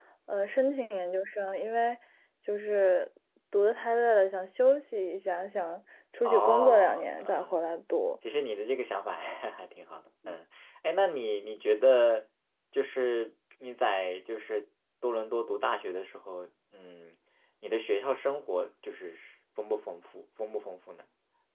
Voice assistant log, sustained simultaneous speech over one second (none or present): present